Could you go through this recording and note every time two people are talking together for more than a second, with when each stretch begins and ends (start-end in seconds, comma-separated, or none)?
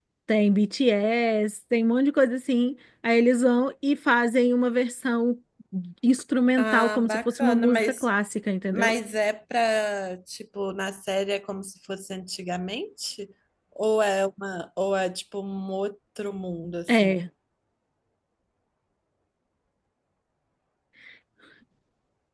6.6-8.1